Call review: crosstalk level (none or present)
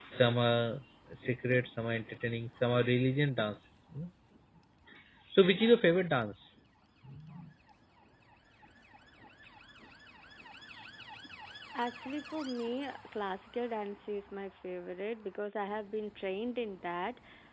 none